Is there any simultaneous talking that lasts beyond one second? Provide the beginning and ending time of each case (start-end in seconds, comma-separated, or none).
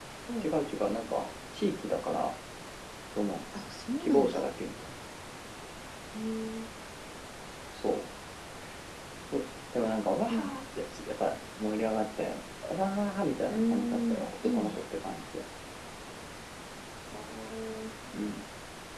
13.5-14.7